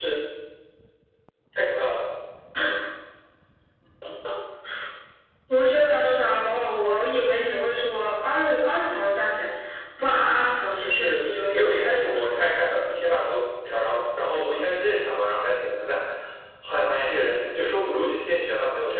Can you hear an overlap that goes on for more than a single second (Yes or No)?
Yes